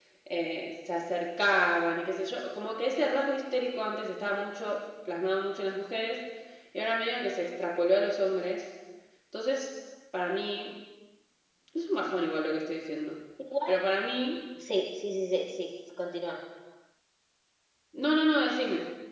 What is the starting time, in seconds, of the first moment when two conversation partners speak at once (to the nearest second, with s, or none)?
none